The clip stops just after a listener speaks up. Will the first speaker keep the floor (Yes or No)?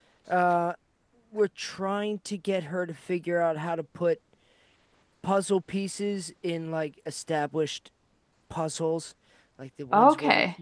Yes